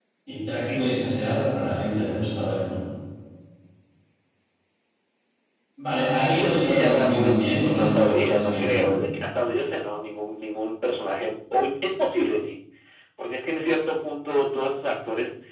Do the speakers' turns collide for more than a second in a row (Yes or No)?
Yes